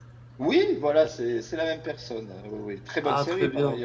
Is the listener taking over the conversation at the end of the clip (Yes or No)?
Yes